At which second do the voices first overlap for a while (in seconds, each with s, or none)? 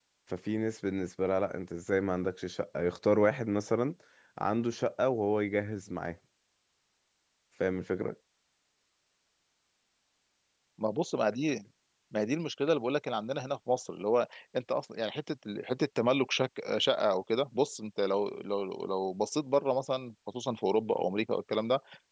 none